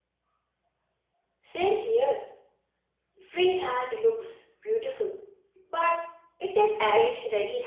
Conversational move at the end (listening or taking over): taking over